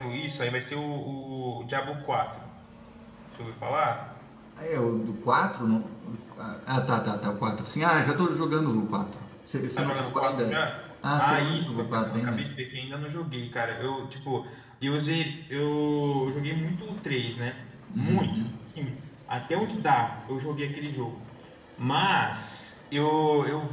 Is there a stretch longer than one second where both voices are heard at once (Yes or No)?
Yes